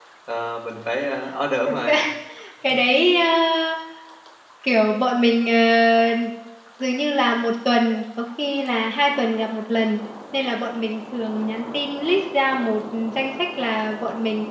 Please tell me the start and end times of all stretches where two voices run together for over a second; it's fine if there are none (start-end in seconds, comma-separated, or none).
none